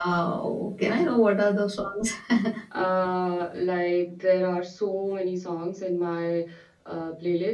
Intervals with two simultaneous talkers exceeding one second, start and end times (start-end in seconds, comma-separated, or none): none